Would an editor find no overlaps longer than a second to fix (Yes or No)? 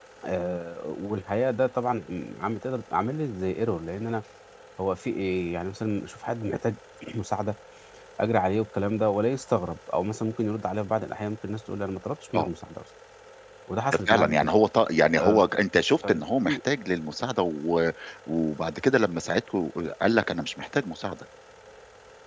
Yes